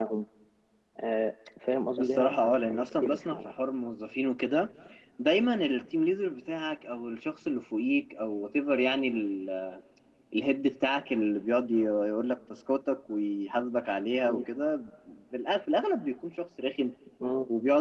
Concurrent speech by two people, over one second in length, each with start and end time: 2.0-3.5

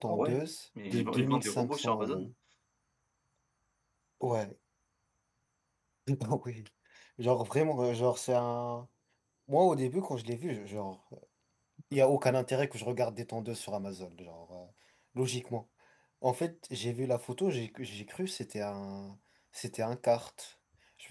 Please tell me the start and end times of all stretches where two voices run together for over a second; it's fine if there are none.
0.9-2.3

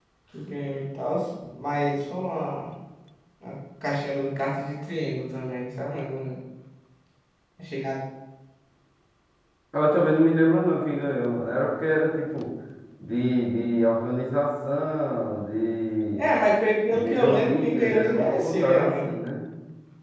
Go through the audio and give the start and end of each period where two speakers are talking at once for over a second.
16.9-19.1

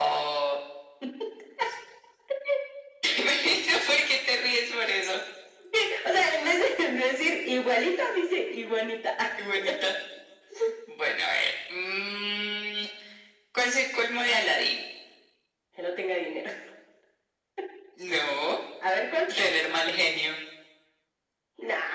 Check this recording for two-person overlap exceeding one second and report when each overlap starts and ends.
none

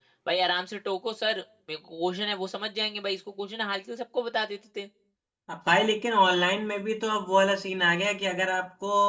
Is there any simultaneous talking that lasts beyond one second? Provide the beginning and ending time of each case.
none

